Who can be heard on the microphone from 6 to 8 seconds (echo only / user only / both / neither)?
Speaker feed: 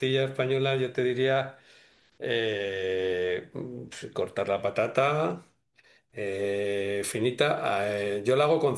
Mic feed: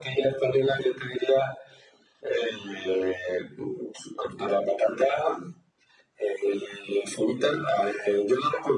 echo only